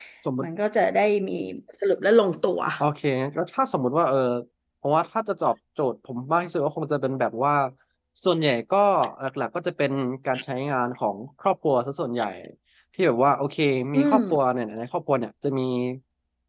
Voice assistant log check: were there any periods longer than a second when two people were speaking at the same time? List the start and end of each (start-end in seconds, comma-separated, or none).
none